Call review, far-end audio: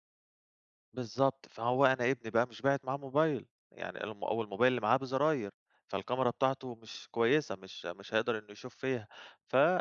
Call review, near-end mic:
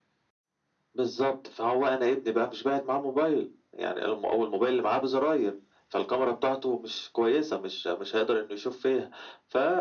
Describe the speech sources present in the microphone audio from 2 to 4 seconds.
echo only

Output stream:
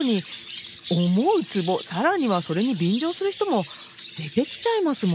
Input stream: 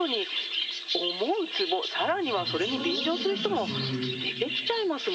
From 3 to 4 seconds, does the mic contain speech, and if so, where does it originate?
both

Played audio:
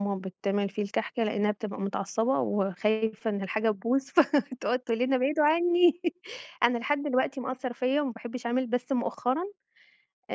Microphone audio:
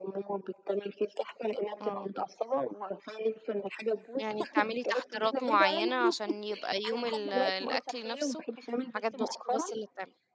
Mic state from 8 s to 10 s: both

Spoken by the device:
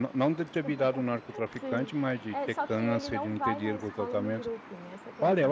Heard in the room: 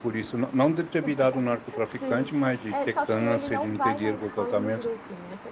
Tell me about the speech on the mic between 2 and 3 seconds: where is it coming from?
echo only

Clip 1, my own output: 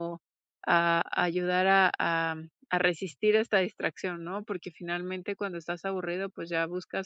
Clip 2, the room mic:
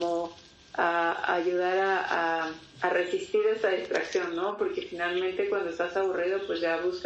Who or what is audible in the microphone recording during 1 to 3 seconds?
echo only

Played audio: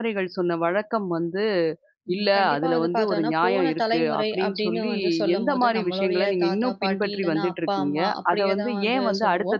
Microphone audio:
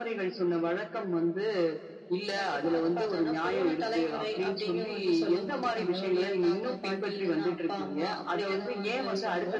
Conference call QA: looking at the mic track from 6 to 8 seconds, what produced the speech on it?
echo only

